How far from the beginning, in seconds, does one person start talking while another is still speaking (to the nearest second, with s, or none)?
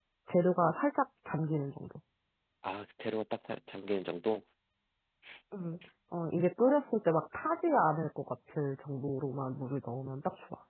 none